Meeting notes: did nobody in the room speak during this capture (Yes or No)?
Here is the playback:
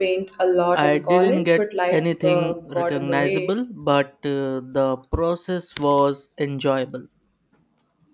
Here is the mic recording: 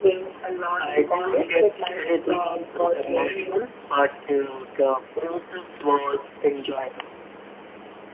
Yes